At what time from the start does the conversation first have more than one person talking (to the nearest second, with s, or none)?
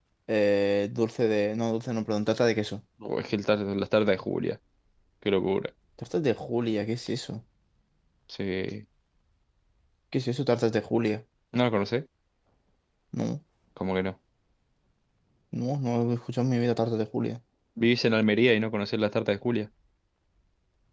none